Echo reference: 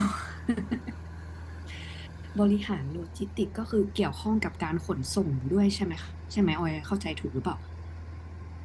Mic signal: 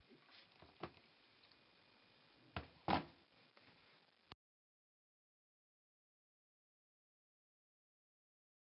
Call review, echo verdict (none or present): none